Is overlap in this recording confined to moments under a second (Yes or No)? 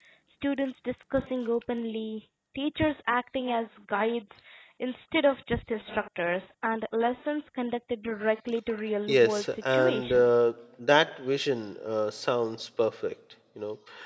No